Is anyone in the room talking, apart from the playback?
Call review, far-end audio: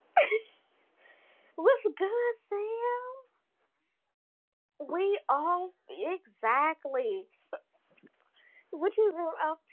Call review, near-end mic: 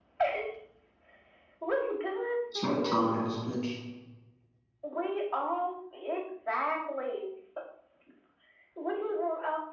Yes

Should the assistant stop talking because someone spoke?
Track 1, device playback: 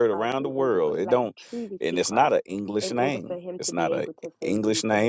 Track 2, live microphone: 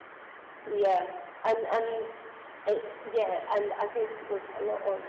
Yes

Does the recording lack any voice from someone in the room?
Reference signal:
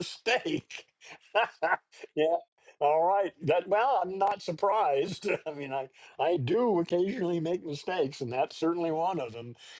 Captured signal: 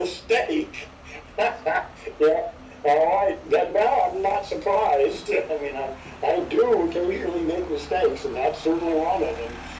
Yes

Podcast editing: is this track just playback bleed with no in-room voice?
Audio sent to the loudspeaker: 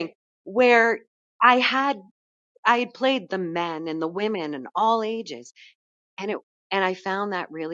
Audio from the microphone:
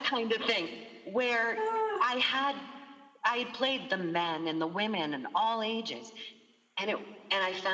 No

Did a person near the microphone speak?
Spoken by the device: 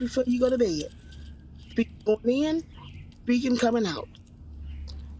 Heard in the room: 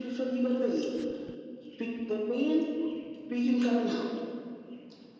No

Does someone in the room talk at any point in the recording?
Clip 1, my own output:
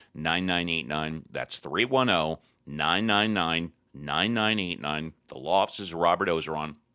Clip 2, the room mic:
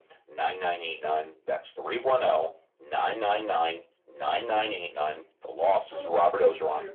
Yes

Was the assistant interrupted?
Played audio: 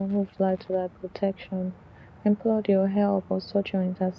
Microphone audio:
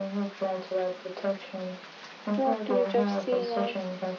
Yes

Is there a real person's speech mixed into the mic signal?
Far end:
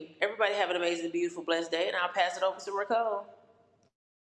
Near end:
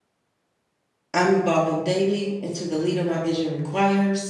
Yes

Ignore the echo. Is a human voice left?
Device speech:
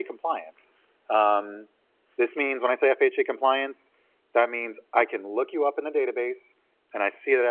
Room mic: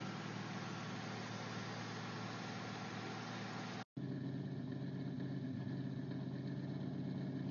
No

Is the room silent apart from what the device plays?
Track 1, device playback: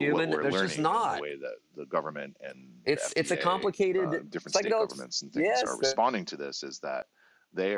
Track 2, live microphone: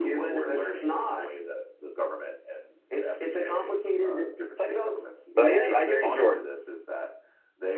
No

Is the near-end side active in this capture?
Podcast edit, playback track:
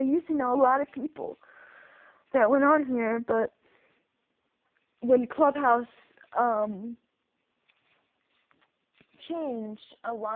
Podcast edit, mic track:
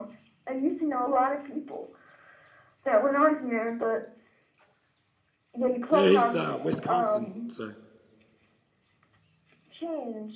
Yes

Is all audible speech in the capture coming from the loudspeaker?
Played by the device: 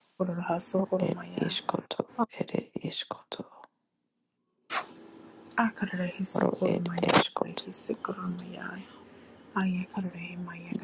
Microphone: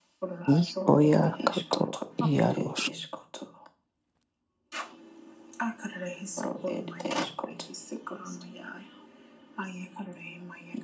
No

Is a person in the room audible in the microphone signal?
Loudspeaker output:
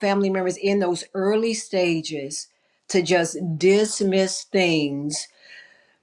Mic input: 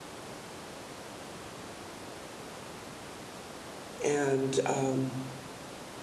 Yes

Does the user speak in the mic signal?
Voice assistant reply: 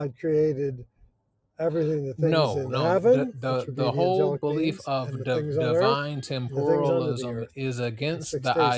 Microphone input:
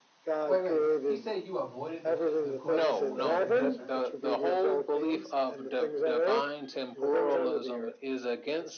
Yes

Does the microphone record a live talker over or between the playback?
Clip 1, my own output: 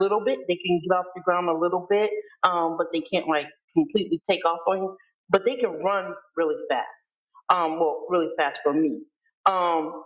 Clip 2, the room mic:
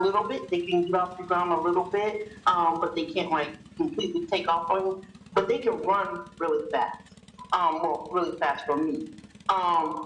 No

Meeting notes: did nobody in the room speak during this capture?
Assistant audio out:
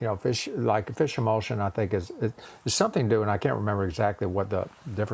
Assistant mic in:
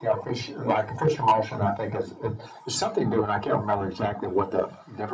Yes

